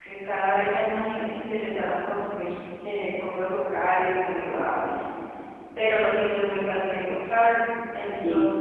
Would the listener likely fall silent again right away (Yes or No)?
Yes